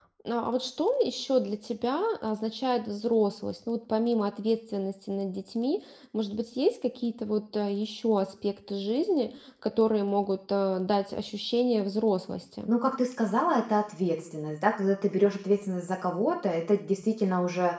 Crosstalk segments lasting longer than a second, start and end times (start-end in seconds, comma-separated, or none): none